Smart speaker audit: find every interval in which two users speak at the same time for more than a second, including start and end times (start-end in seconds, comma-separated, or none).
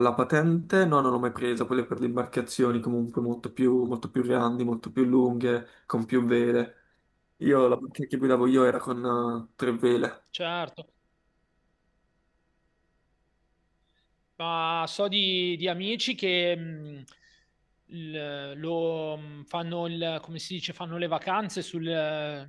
none